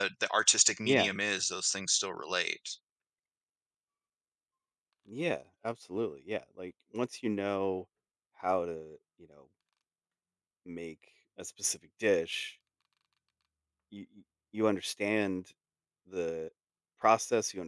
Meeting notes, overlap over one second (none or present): none